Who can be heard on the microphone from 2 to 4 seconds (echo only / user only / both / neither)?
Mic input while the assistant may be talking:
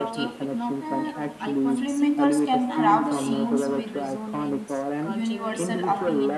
both